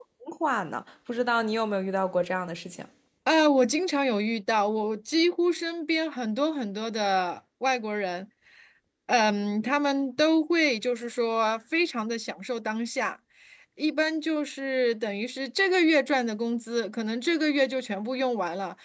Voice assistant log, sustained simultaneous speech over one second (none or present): none